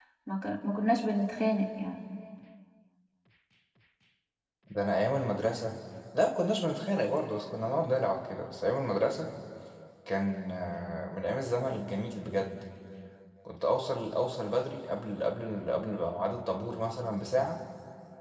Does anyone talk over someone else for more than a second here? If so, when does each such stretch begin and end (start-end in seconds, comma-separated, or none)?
none